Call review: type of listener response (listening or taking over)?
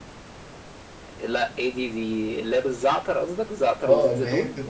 taking over